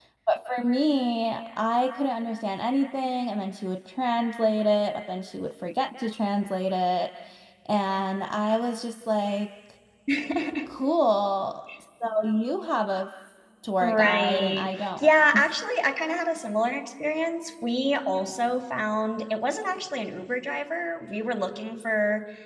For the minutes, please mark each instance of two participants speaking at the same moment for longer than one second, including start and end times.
13.8-15.1

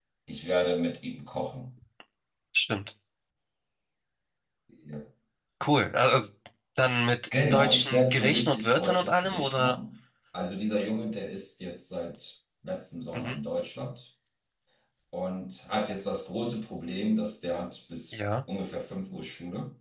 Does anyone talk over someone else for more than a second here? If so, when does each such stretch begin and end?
7.5-9.8

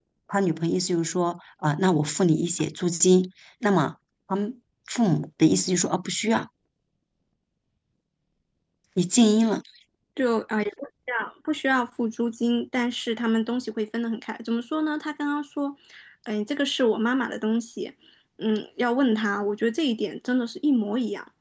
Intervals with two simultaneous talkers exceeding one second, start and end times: none

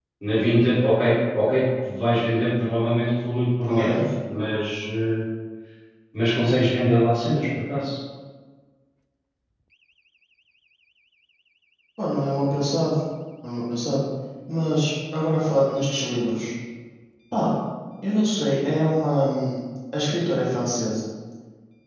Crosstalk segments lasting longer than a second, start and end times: none

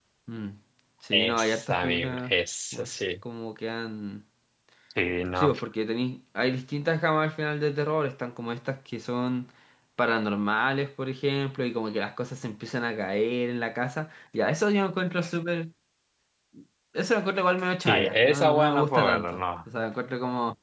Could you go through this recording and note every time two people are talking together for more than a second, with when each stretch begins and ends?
1.1-2.3, 17.9-19.4

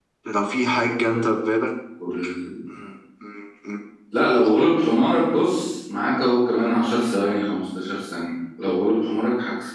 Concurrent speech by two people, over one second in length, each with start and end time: none

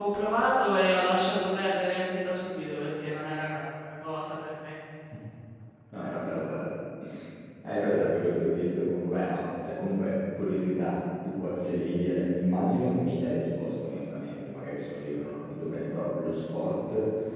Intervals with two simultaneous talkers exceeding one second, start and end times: none

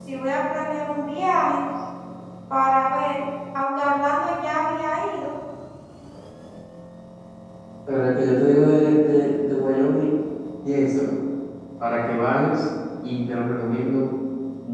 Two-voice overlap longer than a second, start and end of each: none

